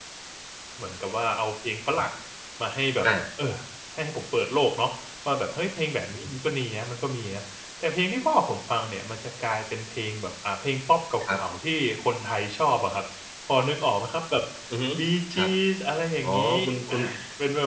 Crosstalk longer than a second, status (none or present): none